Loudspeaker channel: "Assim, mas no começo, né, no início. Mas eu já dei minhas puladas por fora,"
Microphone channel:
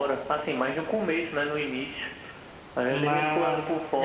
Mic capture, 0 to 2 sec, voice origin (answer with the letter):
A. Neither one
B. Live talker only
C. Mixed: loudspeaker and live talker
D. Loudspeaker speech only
D